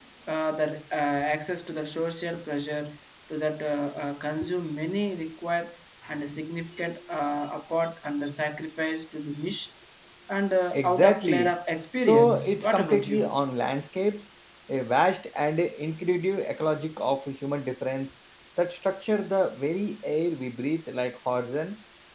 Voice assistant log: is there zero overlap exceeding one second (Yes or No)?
No